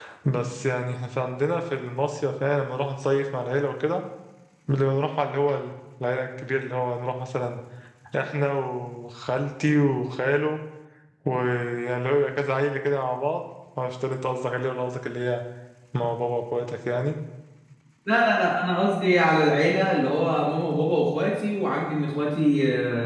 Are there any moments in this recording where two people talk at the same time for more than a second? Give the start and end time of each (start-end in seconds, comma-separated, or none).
none